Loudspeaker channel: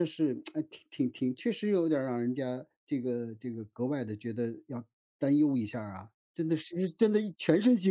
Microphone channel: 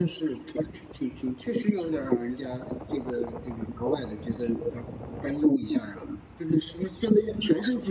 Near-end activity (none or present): none